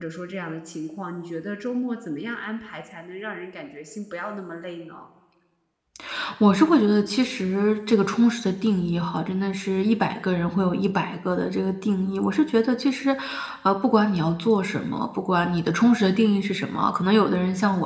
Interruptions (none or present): none